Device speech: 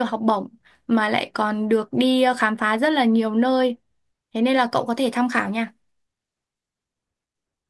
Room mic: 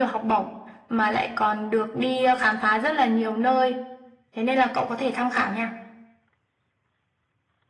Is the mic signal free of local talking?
Yes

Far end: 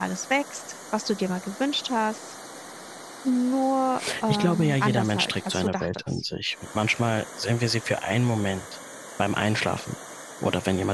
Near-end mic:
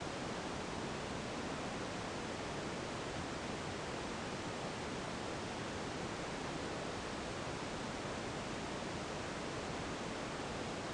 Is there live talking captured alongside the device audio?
No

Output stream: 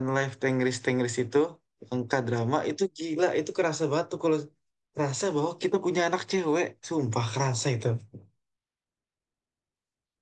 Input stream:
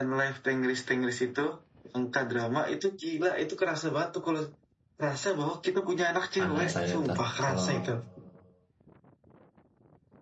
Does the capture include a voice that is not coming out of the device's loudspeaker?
Yes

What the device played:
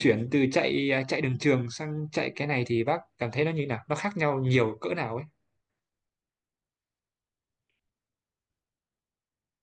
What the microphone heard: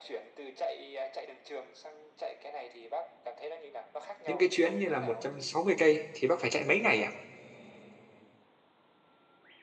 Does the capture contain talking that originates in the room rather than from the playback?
Yes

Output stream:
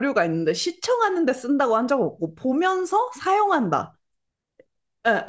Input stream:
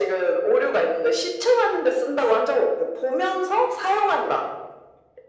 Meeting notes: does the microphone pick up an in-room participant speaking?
No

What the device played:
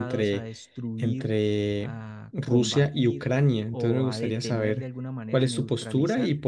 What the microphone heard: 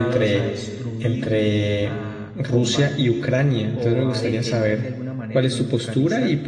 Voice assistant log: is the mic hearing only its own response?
Yes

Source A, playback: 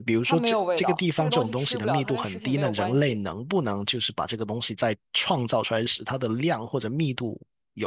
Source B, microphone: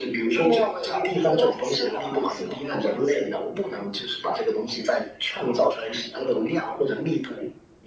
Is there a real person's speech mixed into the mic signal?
No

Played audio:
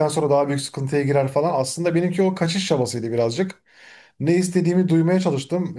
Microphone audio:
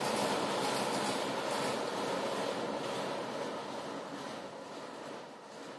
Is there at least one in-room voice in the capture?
No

